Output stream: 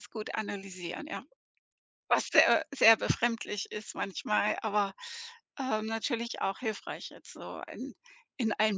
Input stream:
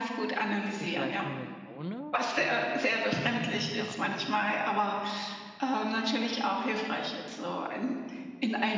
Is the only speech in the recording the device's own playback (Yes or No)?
No